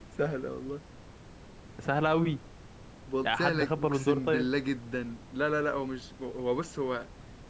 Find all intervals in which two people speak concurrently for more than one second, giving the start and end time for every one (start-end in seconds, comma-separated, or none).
3.2-4.5